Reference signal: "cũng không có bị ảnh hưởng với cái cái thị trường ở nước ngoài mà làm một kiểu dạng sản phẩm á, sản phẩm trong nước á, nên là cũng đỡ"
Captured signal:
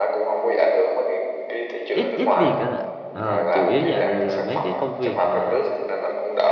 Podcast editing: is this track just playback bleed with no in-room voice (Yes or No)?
No